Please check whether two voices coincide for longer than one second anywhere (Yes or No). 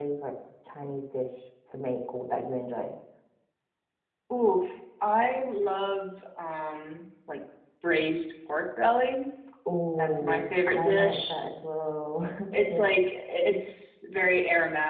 Yes